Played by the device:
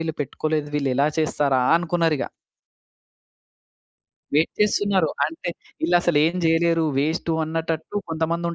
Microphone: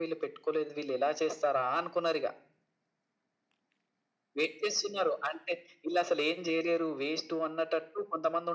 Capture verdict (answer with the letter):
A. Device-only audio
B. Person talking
A